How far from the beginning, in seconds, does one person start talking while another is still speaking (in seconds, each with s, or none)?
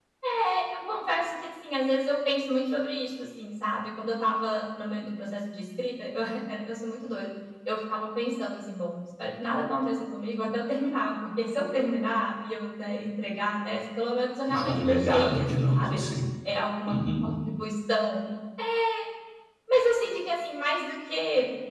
14.5 s